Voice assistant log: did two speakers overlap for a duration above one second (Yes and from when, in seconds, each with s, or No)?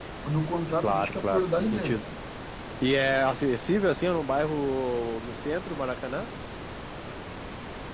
Yes, from 0.8 s